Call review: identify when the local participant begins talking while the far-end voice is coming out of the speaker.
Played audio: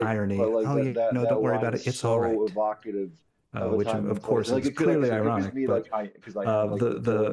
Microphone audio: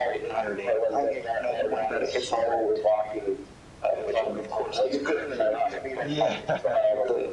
6.0 s

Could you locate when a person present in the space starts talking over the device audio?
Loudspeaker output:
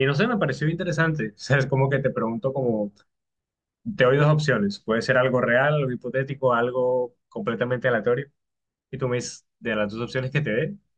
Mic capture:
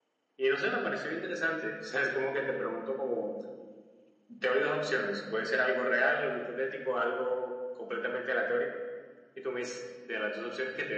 none

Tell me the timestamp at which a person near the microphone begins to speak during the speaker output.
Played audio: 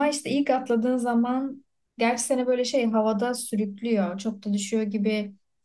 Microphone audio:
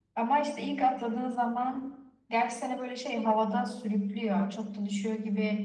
none

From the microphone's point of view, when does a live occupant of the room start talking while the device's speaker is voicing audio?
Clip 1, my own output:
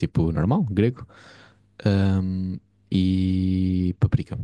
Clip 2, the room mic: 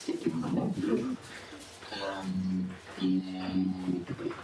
0.9 s

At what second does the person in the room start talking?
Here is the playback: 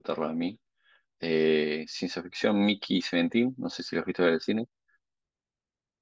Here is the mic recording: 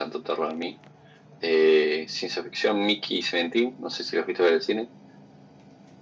none

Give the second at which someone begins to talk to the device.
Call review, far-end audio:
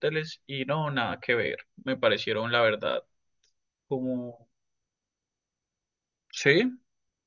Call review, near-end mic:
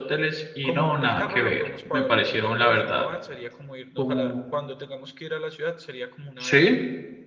0.6 s

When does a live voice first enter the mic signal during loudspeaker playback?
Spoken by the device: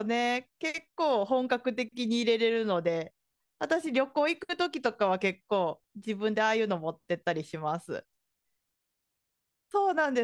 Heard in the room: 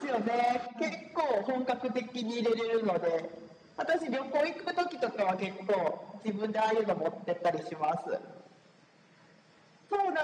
0.7 s

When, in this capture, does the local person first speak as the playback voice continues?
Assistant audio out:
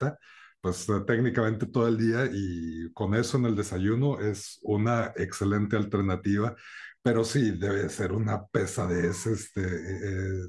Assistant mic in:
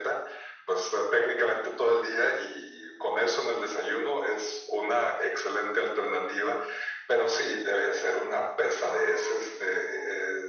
none

